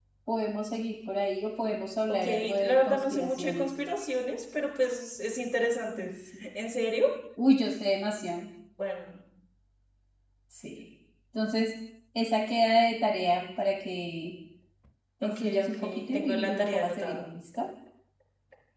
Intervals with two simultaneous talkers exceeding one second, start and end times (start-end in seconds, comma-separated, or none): 2.2-3.7, 15.2-17.2